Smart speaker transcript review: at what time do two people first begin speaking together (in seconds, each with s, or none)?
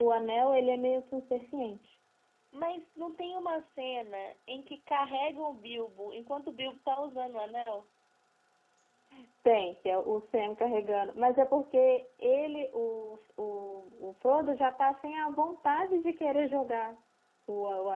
none